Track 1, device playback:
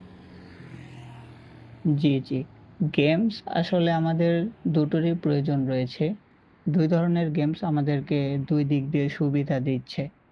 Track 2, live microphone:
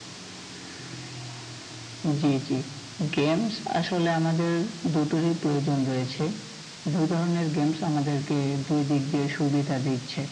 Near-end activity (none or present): none